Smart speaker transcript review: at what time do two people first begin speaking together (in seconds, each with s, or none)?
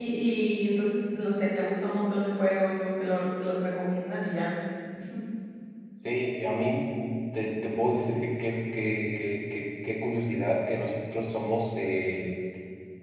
none